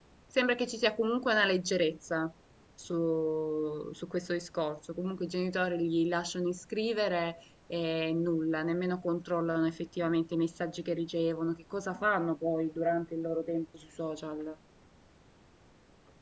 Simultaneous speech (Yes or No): No